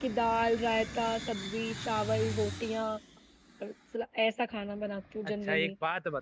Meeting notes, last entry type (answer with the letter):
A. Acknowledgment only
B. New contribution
B